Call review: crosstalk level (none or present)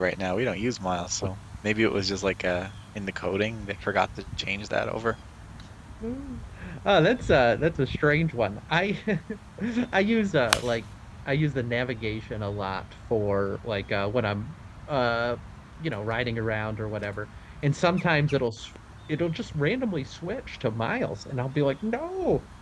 none